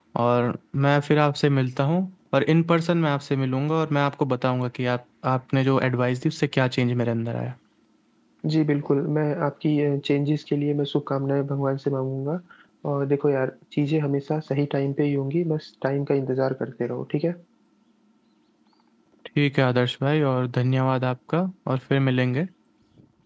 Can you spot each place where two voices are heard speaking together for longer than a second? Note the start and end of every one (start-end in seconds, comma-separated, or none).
none